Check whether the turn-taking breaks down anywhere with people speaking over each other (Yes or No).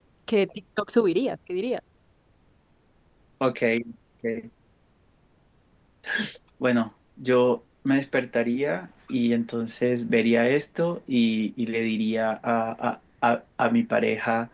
No